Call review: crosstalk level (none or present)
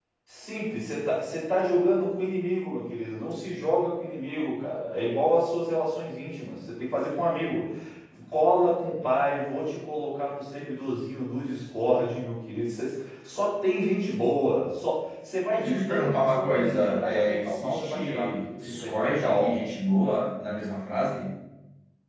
present